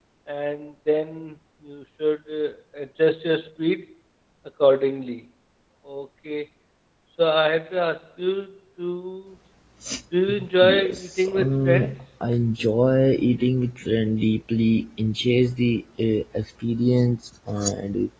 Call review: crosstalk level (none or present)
present